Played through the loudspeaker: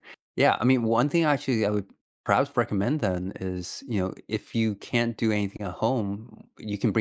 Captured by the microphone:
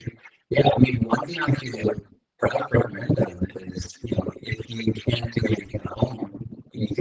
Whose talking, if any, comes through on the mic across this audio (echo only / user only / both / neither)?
echo only